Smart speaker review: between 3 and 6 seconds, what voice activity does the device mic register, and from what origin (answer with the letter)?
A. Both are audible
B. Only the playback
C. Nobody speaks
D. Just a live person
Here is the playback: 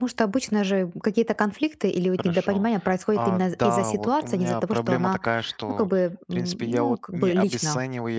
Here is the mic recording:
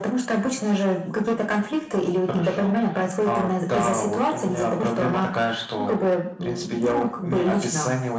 B